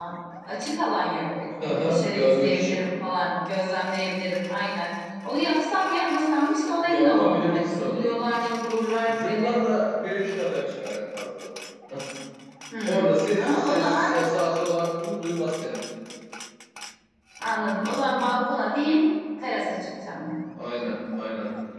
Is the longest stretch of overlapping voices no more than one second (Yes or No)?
No